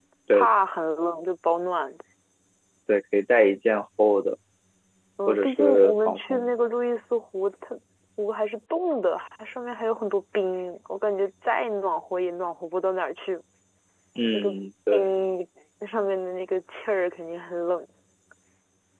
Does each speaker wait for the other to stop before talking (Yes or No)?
No